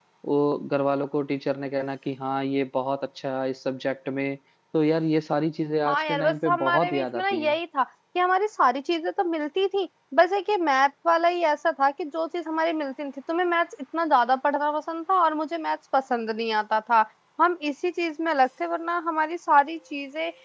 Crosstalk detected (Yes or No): Yes